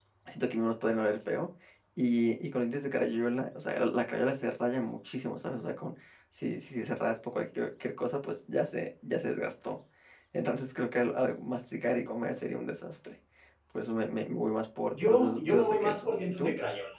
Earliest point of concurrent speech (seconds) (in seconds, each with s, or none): 14.9 s